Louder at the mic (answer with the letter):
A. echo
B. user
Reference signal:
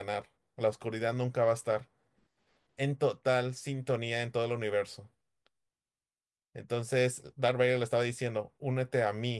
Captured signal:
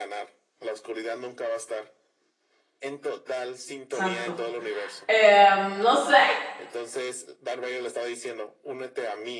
B